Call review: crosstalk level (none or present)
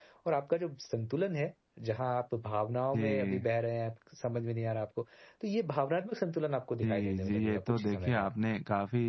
present